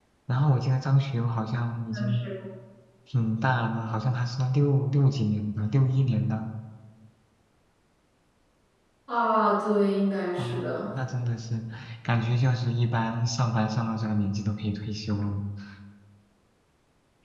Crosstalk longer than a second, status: none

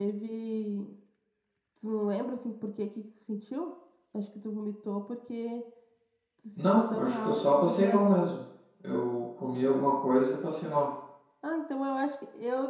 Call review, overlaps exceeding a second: present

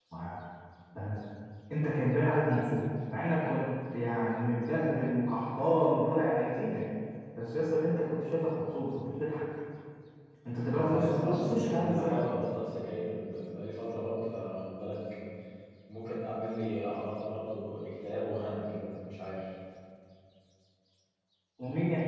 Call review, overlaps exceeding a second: present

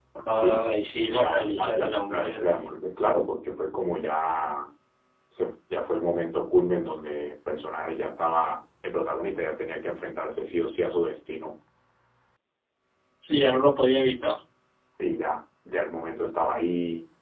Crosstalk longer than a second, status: present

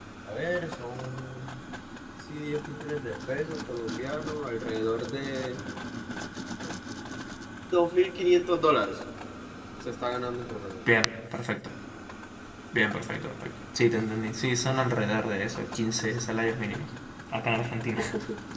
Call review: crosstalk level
none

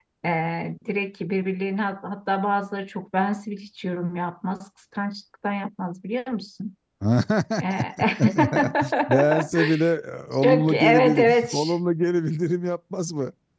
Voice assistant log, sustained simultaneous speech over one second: present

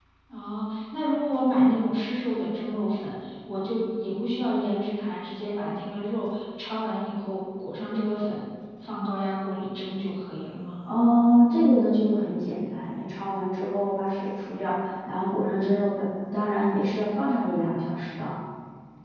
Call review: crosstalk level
none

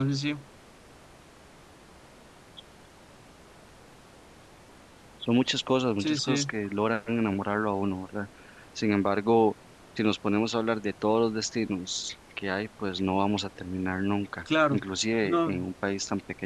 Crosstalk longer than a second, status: none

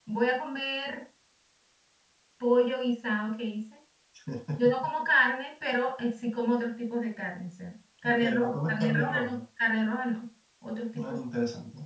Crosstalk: present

